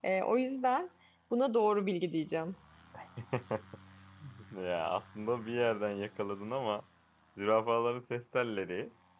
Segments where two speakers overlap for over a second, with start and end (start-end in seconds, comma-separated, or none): none